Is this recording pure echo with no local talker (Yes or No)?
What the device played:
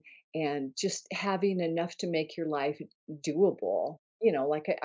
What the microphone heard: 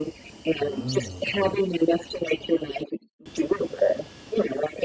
No